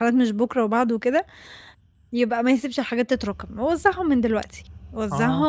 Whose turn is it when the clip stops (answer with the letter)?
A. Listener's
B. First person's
A